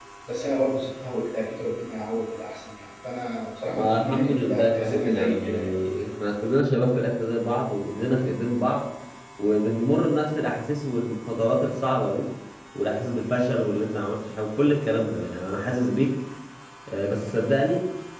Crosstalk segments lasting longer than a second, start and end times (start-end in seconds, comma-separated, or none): 3.7-5.7